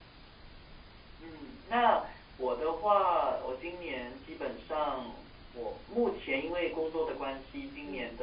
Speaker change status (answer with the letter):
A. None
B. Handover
A